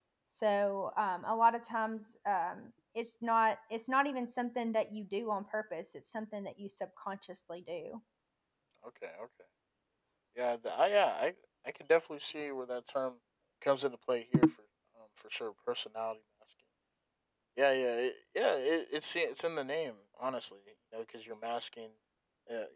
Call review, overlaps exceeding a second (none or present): none